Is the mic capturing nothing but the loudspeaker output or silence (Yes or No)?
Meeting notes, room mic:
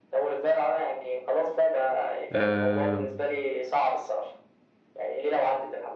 No